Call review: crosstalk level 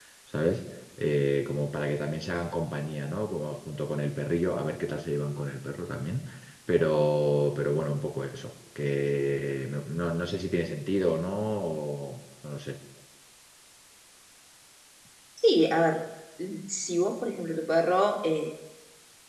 none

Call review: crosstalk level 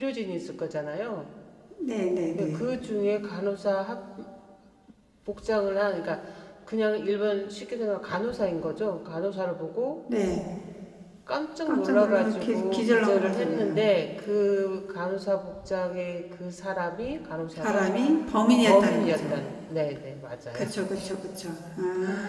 present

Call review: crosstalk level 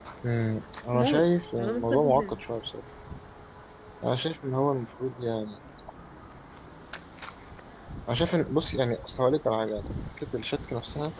present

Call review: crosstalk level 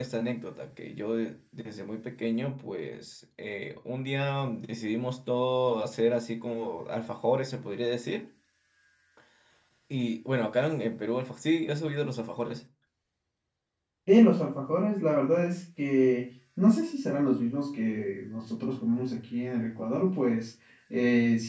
none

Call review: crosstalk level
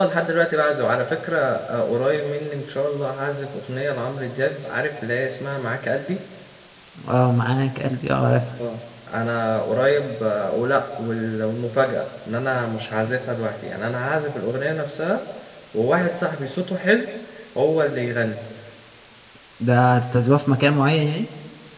none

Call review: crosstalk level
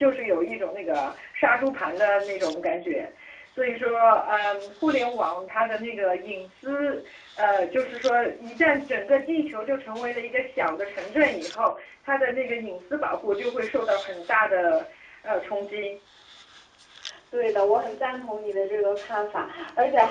none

